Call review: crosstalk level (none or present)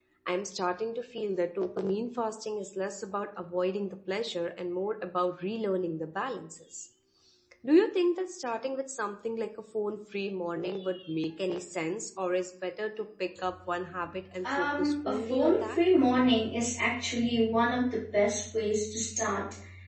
present